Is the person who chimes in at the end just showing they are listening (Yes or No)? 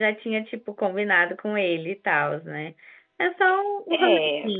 No